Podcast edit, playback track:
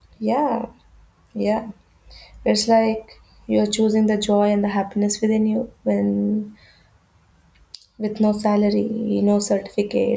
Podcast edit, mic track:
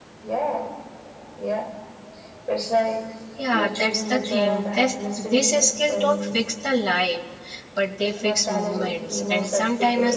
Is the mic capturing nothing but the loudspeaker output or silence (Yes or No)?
No